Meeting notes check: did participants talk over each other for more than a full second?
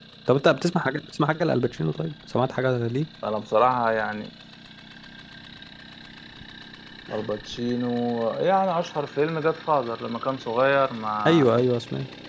No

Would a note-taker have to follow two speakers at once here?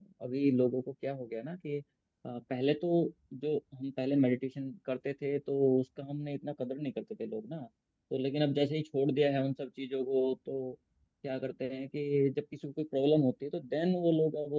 No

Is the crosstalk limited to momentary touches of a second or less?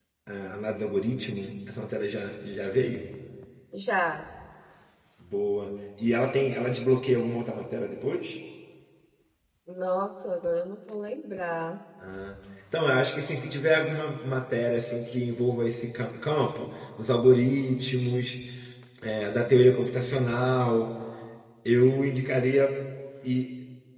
Yes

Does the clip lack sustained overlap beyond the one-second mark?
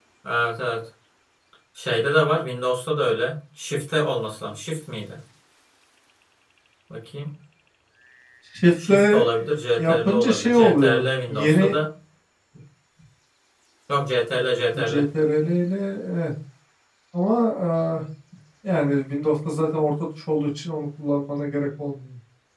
No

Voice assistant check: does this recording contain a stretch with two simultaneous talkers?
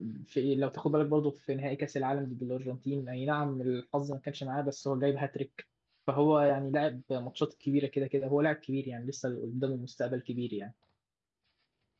No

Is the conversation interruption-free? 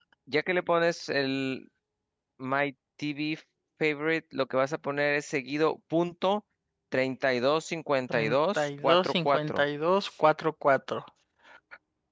No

